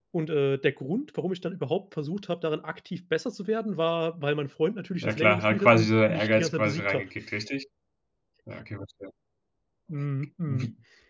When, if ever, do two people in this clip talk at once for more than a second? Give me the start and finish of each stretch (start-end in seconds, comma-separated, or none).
4.9-7.0